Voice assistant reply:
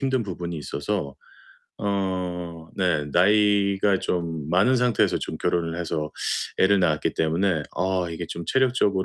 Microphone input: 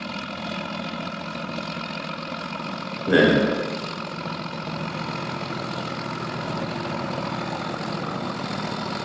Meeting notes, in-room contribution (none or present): present